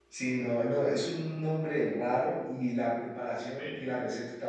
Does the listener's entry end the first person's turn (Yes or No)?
No